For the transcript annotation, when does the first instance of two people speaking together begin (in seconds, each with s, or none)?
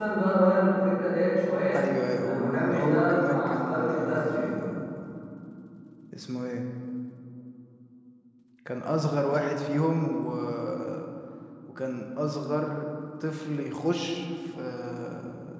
2.2 s